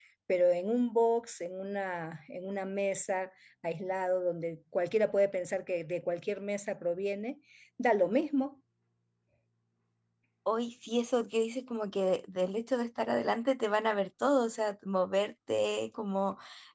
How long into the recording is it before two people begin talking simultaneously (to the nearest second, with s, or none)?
none